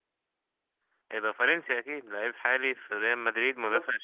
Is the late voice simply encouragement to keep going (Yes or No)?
Yes